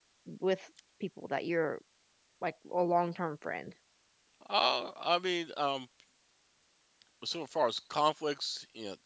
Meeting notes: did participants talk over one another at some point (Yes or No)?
No